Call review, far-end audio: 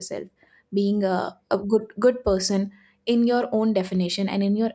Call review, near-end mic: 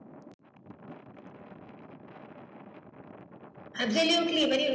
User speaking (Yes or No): Yes